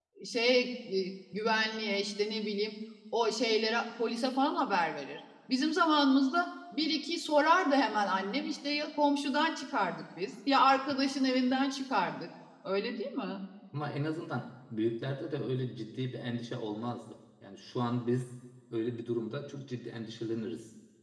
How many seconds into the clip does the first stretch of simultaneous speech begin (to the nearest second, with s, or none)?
none